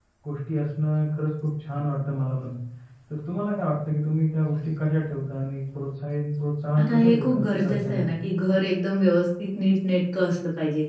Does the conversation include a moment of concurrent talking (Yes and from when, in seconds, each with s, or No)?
Yes, from 6.8 s